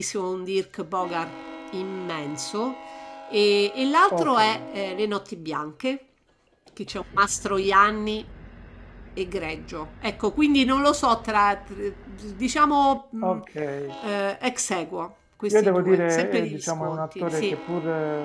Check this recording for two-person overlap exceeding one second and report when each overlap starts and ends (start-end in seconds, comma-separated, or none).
15.5-17.5